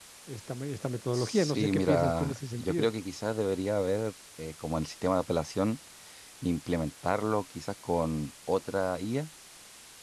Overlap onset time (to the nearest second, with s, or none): 1 s